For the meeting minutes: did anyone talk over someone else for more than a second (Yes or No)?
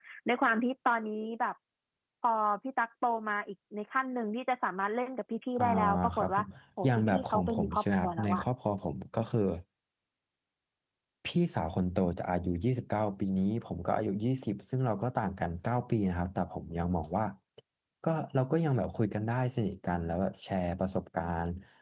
Yes